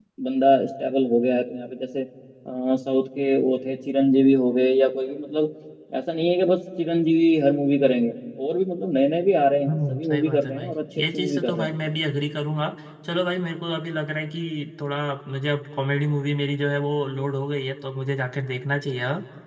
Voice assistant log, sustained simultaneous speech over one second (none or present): present